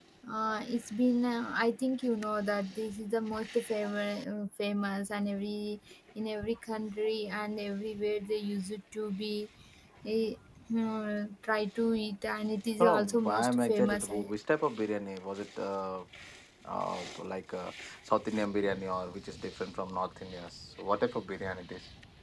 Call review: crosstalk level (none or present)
present